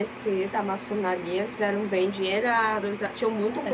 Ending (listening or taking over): listening